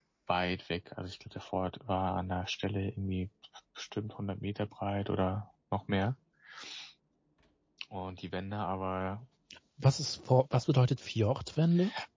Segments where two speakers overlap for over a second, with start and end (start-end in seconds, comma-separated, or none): none